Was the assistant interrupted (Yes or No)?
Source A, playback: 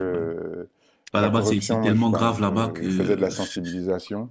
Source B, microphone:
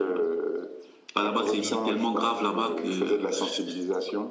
Yes